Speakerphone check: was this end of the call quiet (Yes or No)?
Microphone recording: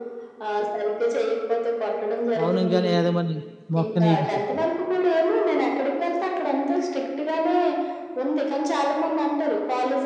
No